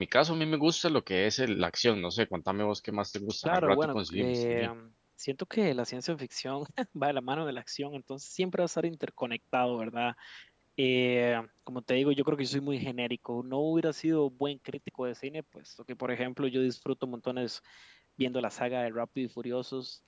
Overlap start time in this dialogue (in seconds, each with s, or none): 3.5 s